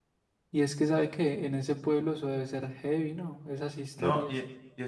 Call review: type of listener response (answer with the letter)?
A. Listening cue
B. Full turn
B